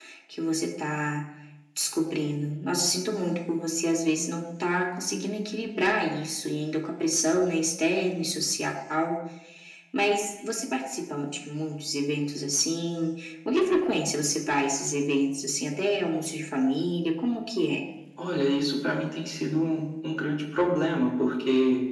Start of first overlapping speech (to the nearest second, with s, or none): none